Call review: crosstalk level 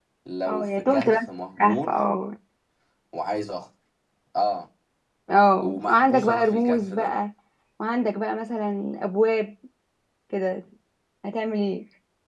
present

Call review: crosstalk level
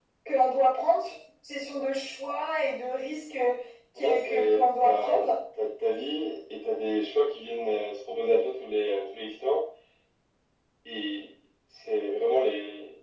present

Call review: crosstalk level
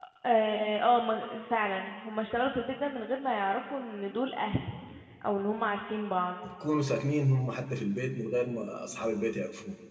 none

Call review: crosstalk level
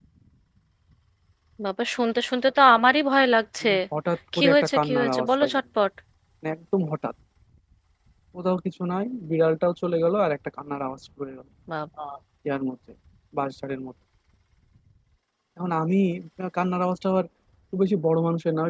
present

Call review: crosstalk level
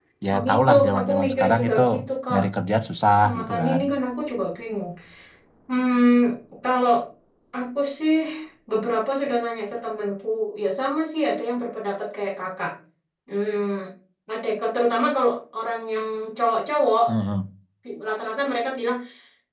present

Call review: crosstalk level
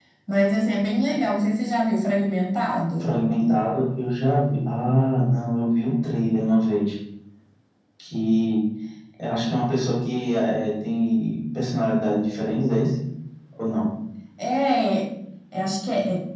none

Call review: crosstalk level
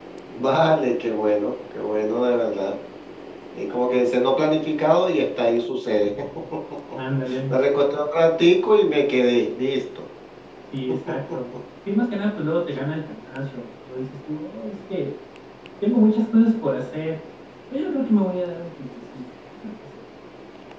none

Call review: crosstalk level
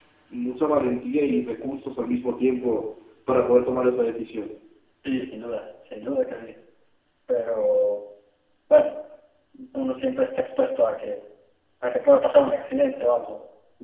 none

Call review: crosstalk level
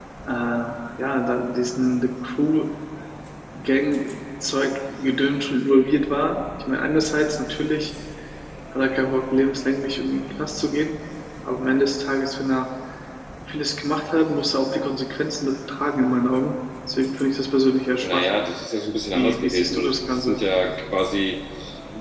present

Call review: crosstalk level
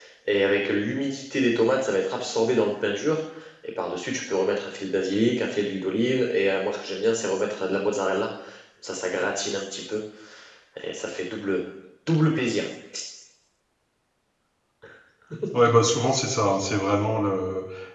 none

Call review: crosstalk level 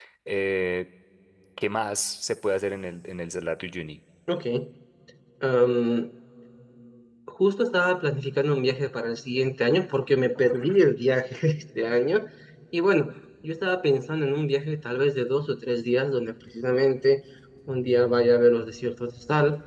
none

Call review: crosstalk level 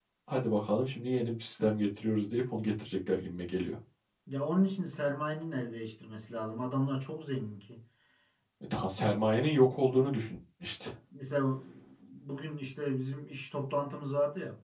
none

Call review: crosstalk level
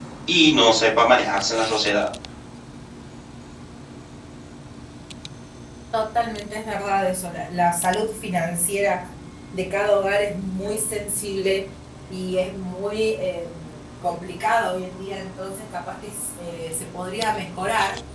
none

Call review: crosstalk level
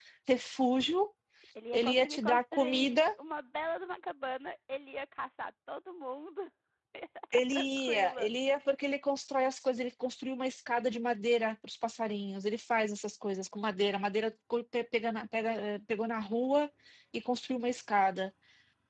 present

